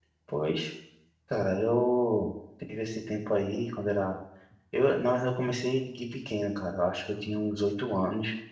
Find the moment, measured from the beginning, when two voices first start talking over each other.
none

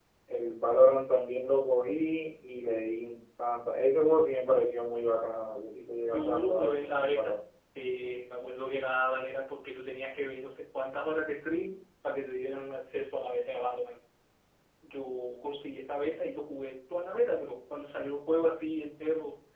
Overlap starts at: 6.0 s

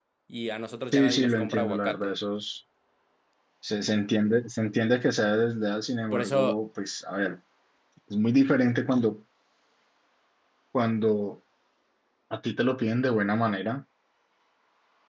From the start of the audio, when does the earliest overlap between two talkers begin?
0.9 s

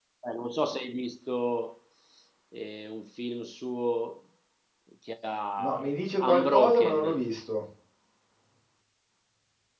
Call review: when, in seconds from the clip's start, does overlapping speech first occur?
5.6 s

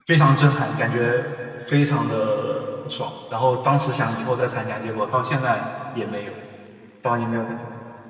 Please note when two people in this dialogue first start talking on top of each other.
none

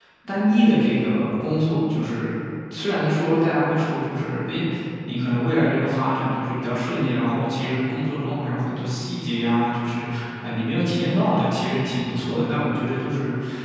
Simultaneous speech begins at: none

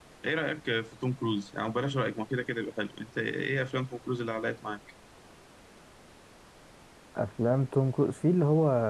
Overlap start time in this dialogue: none

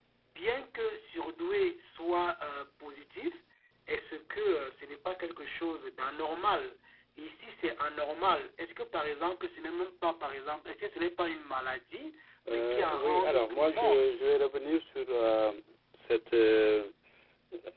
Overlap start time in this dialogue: 12.5 s

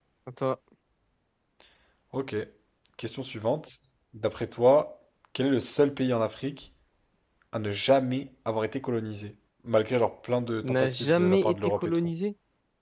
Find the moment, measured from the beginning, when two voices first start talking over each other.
10.6 s

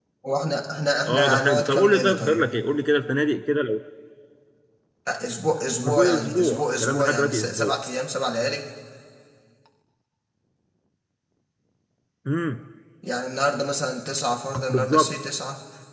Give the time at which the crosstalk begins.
1.1 s

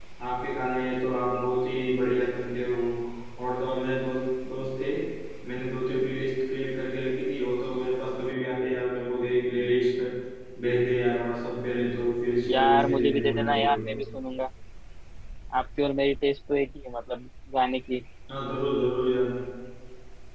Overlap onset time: 12.5 s

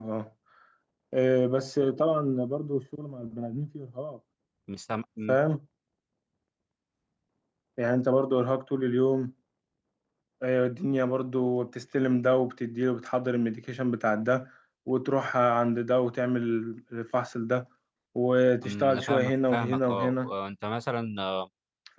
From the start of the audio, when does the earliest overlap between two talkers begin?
18.6 s

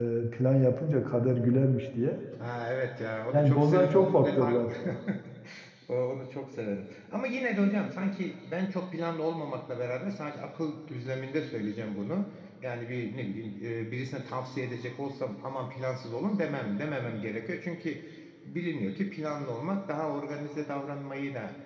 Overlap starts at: 3.3 s

